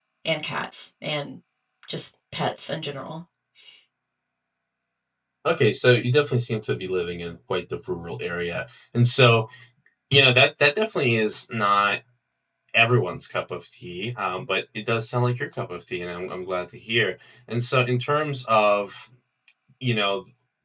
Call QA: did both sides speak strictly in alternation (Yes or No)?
Yes